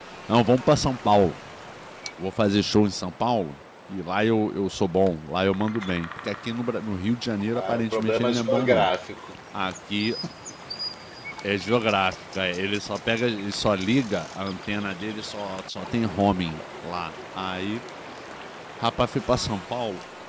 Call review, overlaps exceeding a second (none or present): present